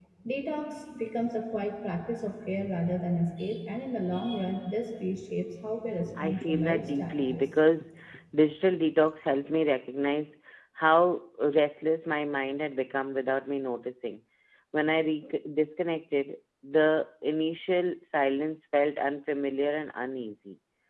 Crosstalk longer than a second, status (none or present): present